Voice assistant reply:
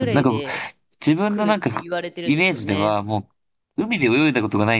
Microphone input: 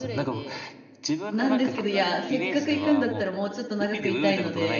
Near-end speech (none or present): present